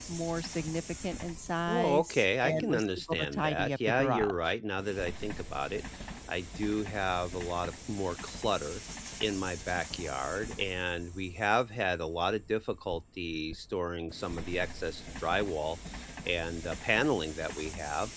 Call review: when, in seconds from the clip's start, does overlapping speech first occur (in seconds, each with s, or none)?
1.7 s